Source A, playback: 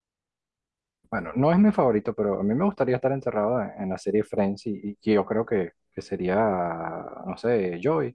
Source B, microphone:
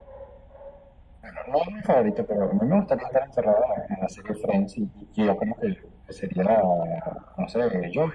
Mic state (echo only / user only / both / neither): echo only